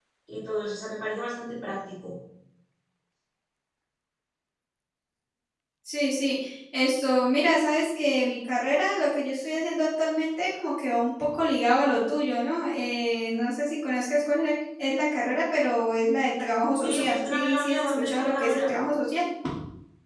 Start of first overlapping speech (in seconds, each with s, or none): 16.8 s